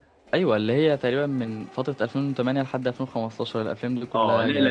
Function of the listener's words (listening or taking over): taking over